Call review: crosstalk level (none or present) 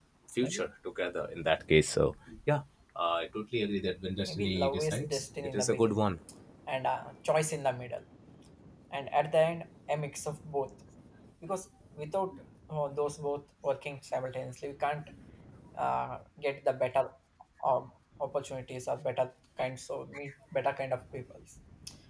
present